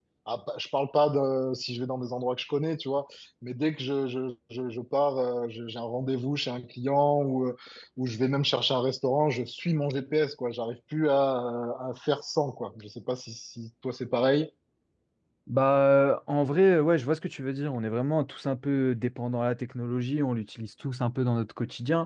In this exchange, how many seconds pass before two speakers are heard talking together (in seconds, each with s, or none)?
none